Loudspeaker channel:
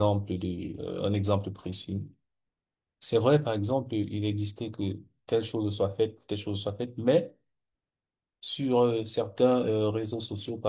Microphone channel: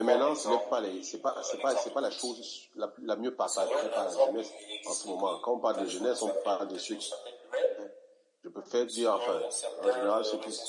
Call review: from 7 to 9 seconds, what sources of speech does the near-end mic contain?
both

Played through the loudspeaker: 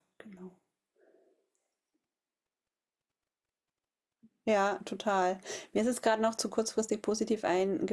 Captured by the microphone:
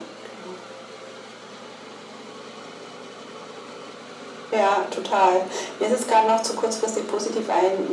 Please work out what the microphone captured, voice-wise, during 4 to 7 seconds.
echo only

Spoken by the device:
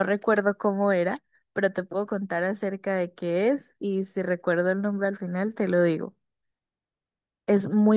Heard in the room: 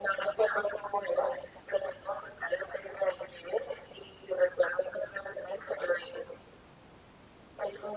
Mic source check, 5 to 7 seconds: echo only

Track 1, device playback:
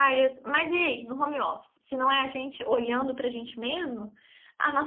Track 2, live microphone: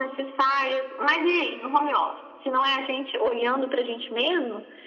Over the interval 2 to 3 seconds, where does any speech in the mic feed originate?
echo only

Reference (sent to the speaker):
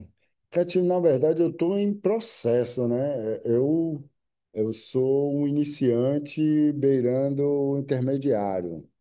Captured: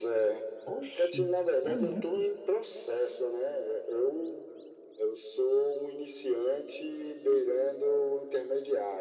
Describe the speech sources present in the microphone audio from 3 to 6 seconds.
echo only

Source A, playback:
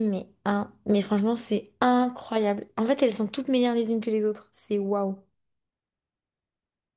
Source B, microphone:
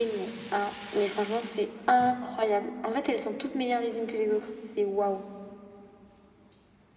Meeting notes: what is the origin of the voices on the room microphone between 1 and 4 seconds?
echo only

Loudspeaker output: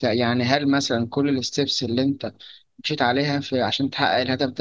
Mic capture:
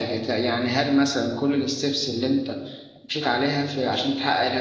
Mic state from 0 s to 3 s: echo only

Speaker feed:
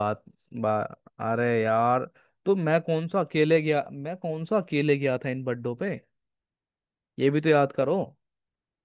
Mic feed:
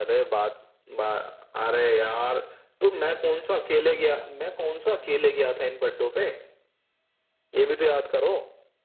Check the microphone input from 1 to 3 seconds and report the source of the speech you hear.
echo only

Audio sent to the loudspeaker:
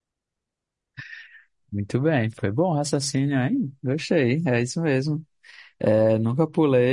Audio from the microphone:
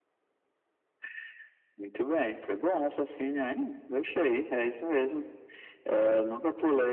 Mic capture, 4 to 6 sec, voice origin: echo only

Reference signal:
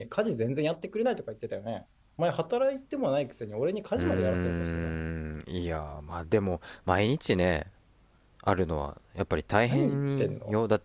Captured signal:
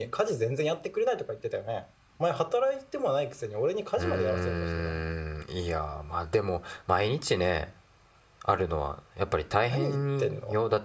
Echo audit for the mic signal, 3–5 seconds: echo only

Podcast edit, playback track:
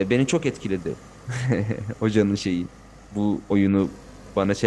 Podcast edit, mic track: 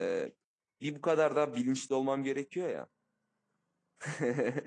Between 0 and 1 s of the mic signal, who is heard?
user only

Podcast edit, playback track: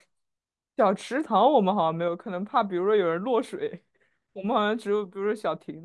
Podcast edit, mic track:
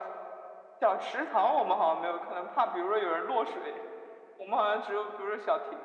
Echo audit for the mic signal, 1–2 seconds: echo only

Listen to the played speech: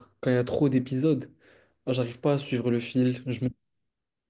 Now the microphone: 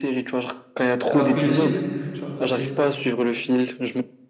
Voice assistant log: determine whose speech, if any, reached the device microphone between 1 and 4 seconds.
both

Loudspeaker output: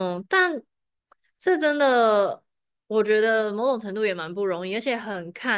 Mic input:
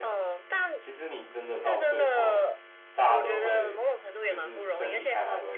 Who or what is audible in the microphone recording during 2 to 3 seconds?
both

